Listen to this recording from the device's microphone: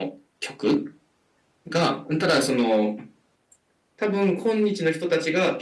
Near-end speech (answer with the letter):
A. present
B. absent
B